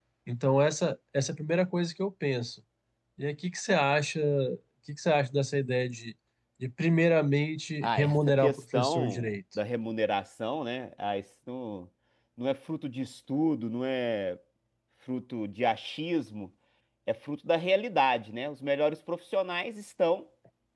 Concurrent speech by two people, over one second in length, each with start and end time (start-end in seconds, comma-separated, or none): 7.8-9.4